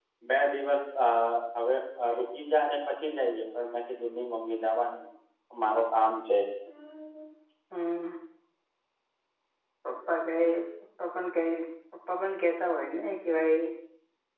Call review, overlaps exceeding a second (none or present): none